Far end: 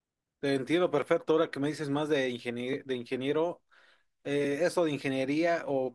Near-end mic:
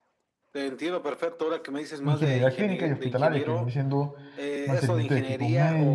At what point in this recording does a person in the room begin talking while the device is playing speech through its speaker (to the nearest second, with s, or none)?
2 s